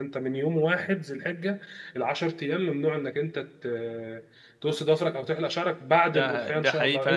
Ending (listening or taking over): taking over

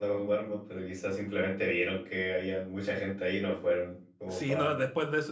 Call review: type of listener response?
taking over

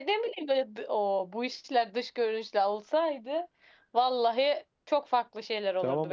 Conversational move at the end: taking over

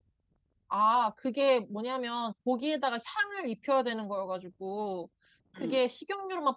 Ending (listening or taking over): listening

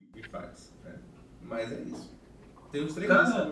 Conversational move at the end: listening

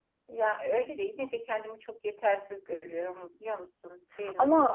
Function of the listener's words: taking over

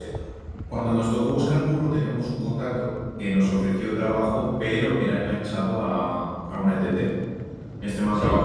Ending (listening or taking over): listening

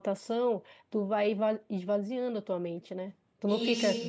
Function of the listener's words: listening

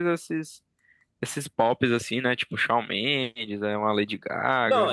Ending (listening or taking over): taking over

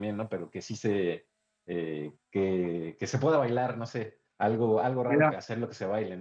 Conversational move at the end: listening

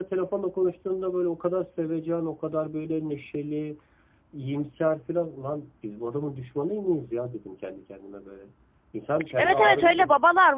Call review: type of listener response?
taking over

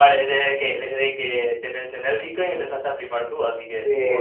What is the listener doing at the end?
taking over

